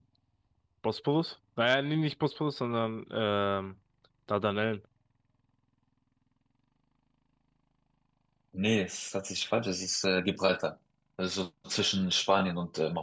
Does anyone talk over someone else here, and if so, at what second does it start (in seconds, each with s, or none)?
none